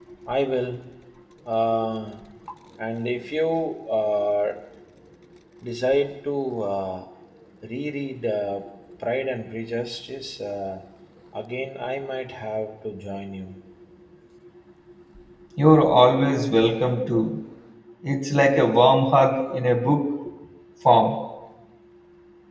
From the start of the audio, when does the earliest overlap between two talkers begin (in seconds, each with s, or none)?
none